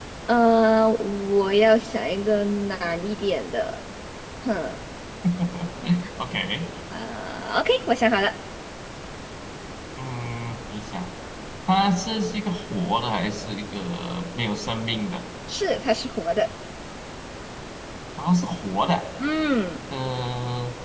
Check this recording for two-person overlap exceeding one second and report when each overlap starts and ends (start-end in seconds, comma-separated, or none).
none